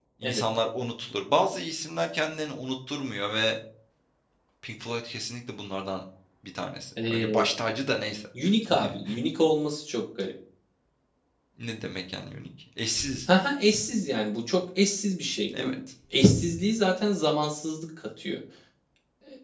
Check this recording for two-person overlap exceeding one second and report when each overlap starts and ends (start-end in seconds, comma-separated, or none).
none